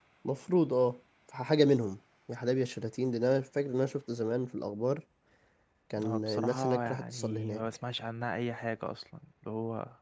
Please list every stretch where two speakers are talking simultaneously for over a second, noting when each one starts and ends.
6.0-7.6

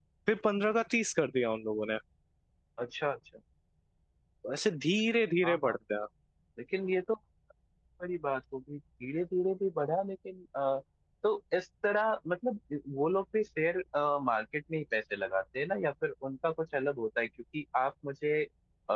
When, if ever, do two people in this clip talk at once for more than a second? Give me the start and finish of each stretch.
none

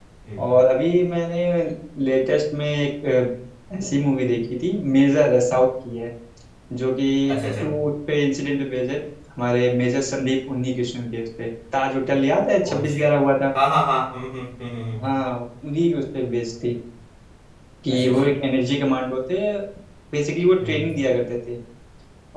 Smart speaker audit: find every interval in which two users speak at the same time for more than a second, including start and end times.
none

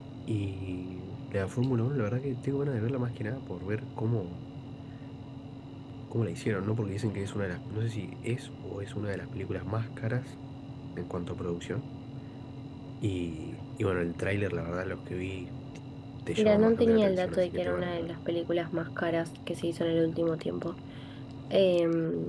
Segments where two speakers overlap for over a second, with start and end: 16.4-18.2

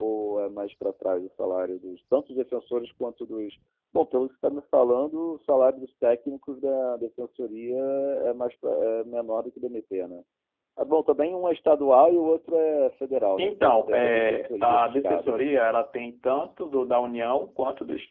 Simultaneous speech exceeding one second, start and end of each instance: 13.4-15.5

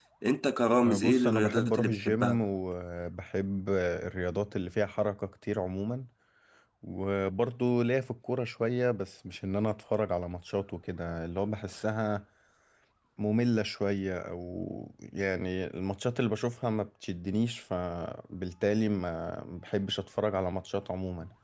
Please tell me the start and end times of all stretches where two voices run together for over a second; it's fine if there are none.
0.8-2.4

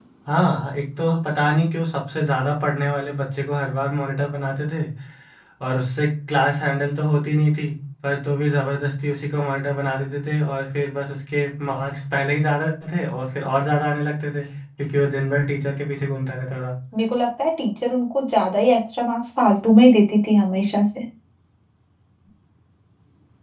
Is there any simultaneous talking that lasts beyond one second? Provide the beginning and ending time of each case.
none

